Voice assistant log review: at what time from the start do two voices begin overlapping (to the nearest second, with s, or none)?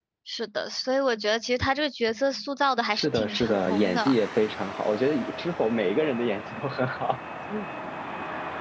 3 s